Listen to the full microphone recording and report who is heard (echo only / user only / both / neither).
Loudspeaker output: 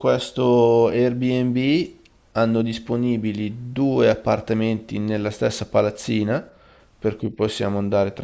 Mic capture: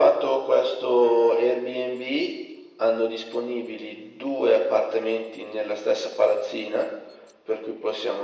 echo only